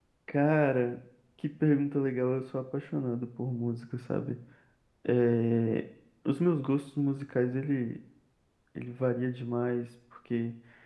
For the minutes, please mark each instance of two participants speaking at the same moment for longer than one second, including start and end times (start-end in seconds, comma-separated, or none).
none